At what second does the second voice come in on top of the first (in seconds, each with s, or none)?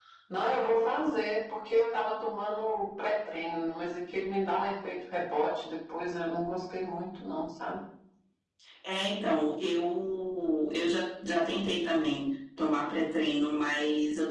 none